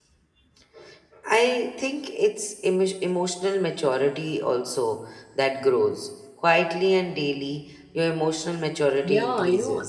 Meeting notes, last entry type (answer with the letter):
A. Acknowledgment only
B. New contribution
B